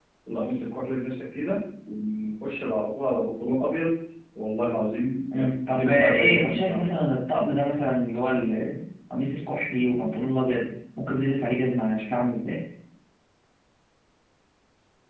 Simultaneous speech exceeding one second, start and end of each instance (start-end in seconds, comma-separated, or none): 5.3-6.8